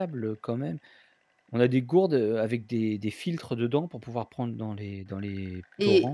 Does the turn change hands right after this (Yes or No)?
Yes